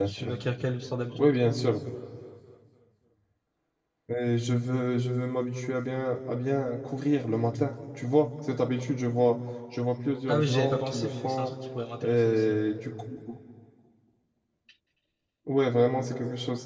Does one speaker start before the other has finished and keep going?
Yes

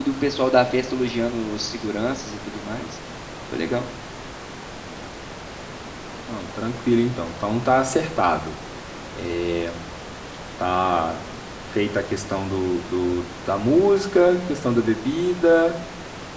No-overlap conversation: Yes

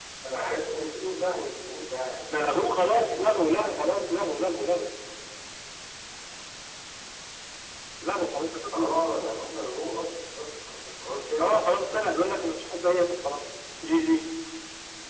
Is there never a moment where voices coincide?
No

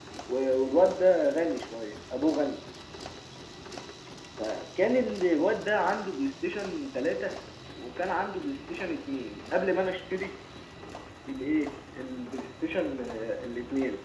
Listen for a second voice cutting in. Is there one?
No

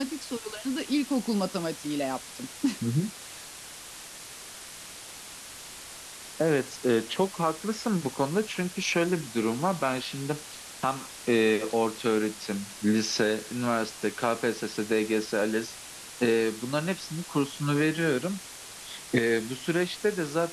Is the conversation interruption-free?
Yes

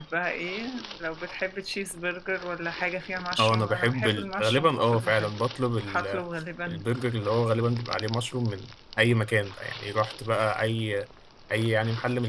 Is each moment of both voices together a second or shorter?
No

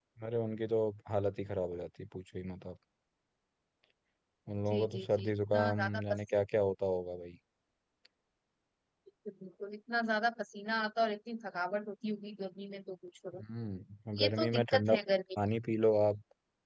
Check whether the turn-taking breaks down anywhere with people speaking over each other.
Yes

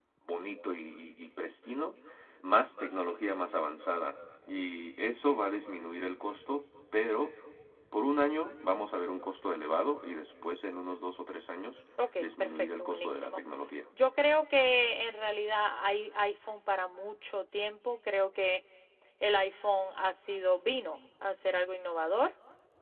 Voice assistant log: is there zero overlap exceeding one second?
No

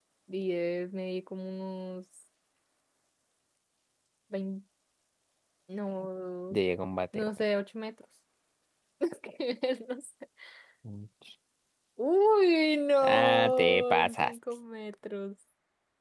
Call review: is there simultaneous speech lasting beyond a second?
Yes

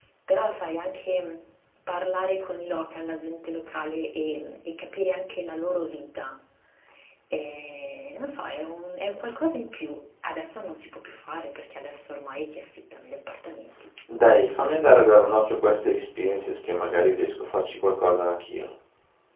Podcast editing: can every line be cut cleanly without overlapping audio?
Yes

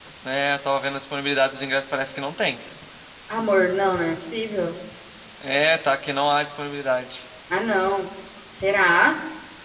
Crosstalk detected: No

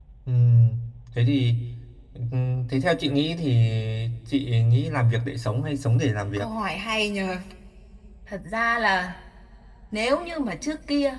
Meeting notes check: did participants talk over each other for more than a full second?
No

